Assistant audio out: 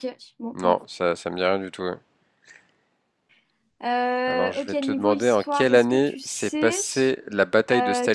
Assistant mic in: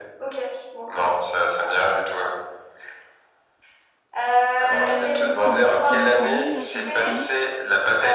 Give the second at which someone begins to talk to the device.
4.7 s

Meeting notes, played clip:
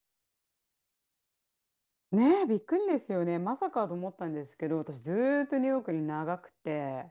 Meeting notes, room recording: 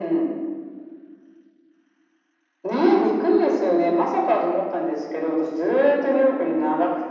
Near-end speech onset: none

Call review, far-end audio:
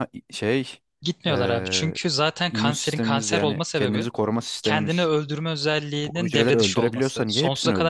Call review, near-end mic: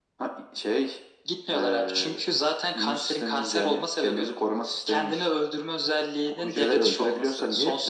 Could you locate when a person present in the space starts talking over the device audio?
none

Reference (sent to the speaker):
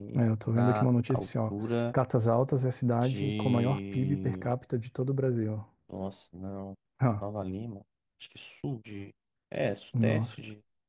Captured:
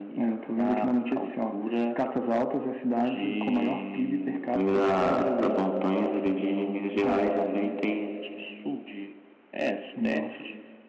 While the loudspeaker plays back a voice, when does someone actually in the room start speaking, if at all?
4.5 s

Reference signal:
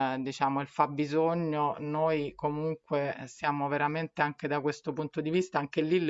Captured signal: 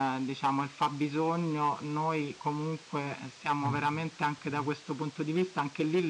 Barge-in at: 3.6 s

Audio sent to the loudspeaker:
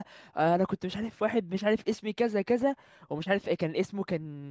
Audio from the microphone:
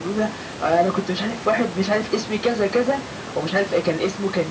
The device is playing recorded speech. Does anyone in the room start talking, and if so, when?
none

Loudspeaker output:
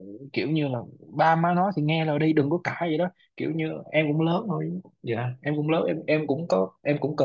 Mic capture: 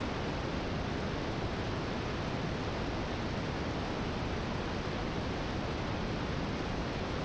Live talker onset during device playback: none

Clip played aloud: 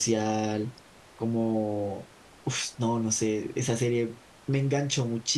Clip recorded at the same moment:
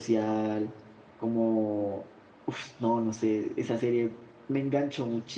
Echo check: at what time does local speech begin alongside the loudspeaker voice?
none

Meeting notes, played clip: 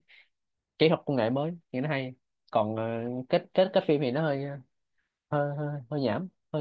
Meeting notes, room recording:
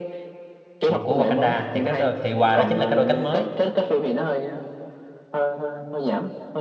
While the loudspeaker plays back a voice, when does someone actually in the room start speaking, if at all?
0.8 s

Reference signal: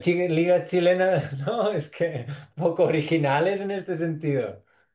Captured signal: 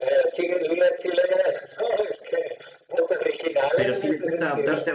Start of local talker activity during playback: 3.7 s

